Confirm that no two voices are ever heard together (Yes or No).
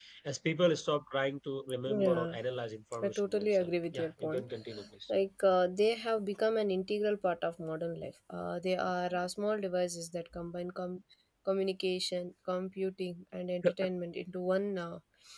No